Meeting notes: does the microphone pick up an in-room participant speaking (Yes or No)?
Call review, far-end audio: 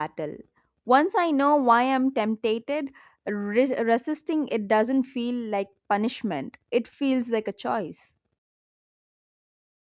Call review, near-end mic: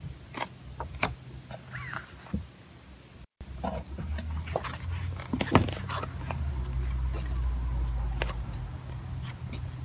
No